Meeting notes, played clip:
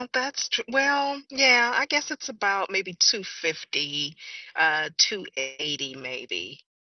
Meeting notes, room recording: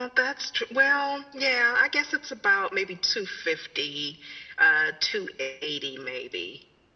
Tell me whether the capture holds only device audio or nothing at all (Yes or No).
Yes